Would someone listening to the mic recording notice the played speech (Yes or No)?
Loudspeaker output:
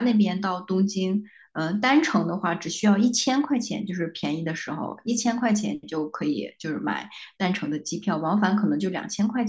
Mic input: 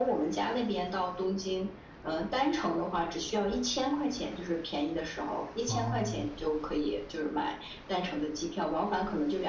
Yes